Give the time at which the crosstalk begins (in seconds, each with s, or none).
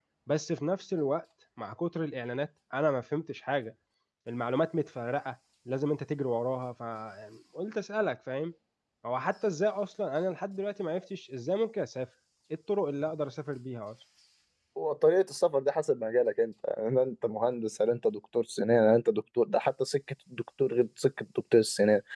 none